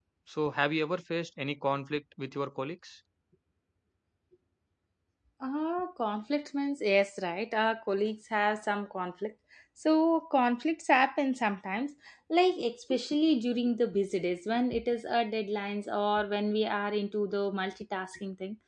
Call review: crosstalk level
none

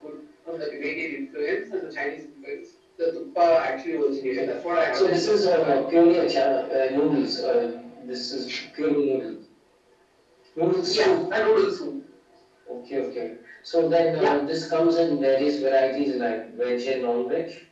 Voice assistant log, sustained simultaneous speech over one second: present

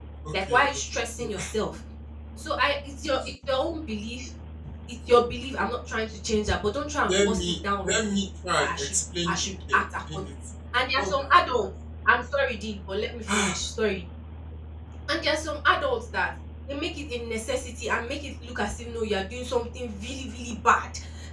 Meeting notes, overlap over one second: present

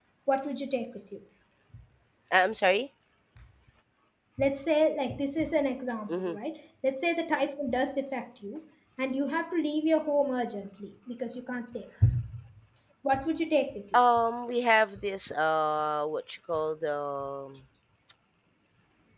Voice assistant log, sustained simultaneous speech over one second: none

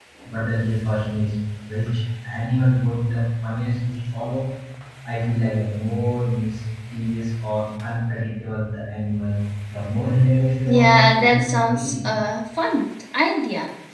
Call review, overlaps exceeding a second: present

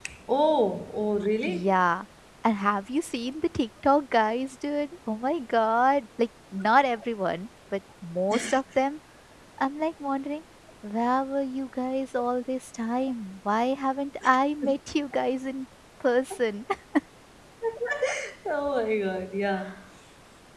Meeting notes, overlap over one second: none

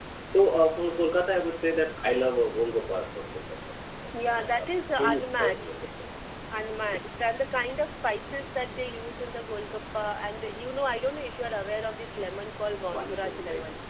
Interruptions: present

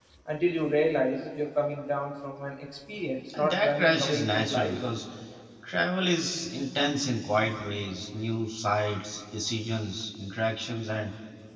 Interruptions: present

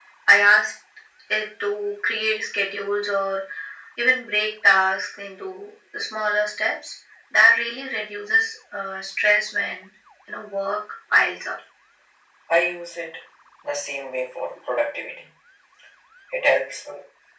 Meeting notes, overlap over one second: none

